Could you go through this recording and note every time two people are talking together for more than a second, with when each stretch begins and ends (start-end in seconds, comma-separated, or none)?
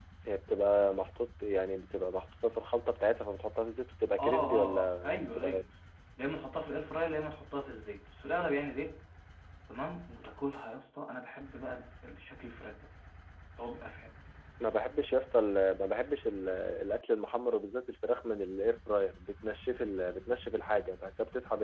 4.2-5.6